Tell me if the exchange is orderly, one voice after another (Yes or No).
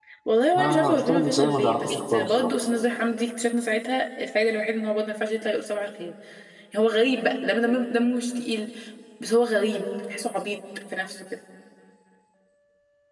No